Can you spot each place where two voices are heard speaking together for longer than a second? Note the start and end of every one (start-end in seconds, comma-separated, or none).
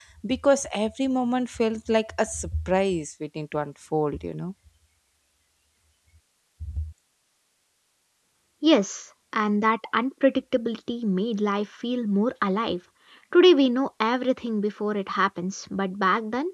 none